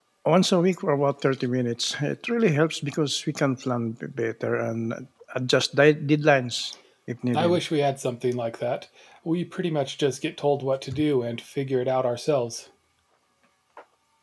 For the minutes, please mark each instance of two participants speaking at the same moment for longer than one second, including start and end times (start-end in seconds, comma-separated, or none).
none